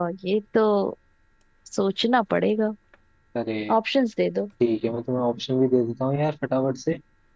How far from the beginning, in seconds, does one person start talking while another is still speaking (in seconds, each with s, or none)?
none